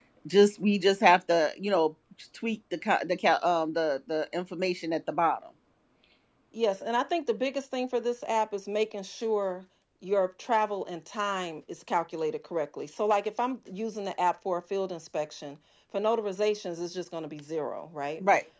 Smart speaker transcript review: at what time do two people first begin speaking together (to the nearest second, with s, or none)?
none